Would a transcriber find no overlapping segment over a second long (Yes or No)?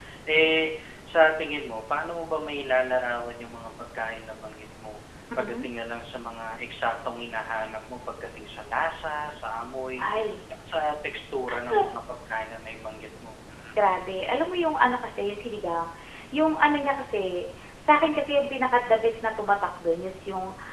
Yes